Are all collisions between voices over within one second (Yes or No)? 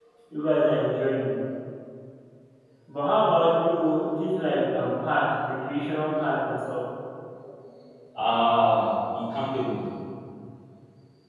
Yes